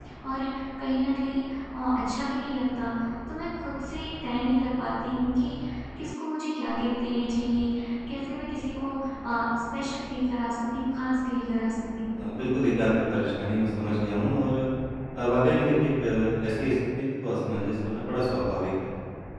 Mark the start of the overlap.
none

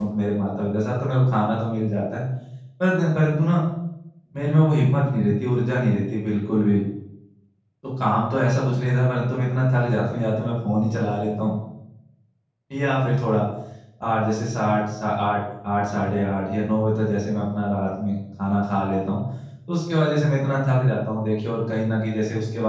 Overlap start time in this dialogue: none

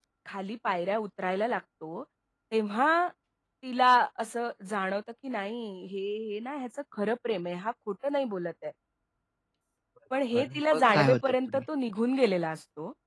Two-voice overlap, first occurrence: 10.3 s

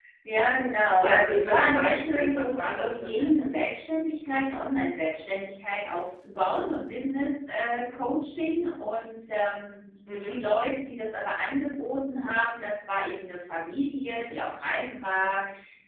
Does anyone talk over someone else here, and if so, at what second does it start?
1.0 s

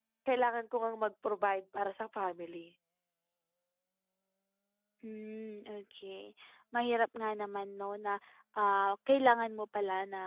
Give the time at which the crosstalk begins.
none

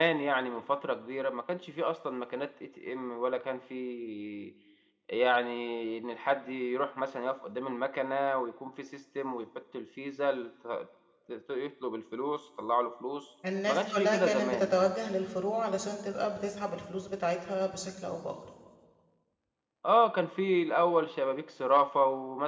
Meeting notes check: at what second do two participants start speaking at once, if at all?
13.4 s

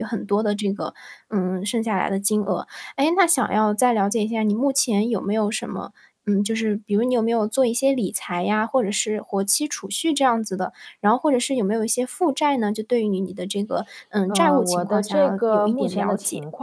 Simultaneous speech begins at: 14.3 s

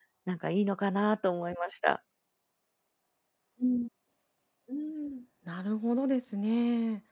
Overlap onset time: none

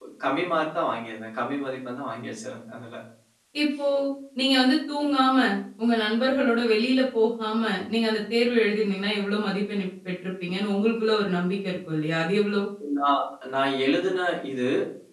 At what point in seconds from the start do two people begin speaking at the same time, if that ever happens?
none

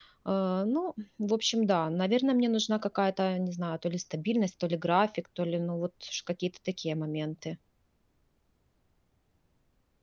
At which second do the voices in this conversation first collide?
none

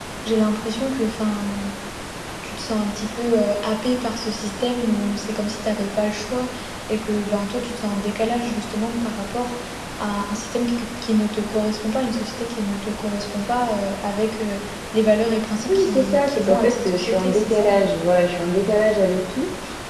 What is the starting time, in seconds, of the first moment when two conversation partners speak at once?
15.7 s

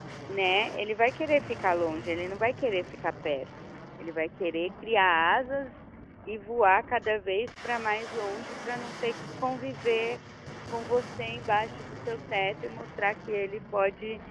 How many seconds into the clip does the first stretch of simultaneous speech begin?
none

